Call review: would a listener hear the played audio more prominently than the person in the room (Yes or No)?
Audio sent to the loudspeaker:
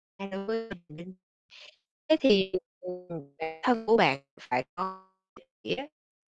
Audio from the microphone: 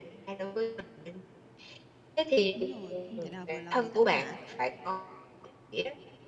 Yes